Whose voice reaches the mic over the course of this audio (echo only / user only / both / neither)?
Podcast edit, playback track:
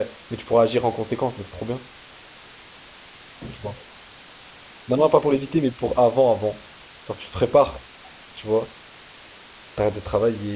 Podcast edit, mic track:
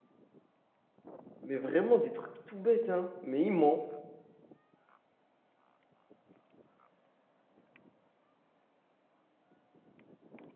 user only